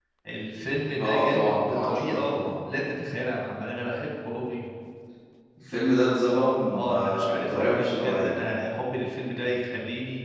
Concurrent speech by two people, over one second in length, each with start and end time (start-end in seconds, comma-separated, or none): 1.0-2.3, 6.7-8.4